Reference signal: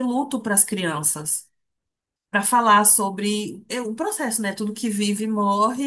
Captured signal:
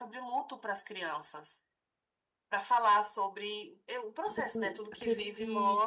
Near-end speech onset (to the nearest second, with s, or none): 4 s